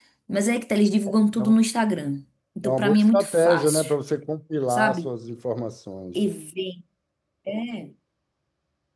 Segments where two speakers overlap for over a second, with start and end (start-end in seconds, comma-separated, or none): 2.6-3.9